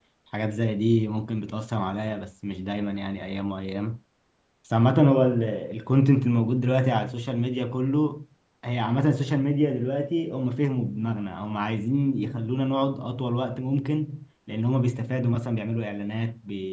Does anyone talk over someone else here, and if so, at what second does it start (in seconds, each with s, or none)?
none